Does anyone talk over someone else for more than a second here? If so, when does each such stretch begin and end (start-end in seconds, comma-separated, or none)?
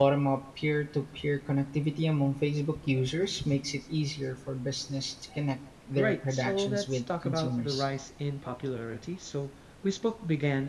6.0-7.9